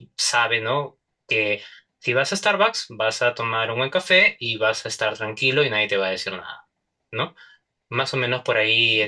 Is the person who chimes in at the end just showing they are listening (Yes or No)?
Yes